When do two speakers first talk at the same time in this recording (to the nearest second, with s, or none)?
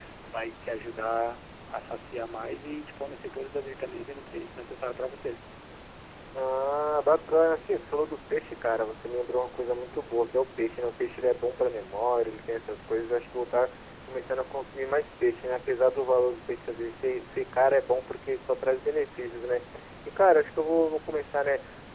none